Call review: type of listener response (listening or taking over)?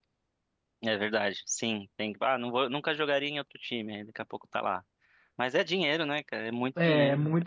taking over